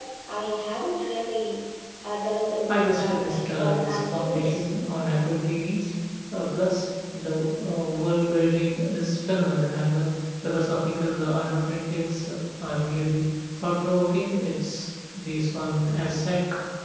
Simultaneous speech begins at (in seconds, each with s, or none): 2.7 s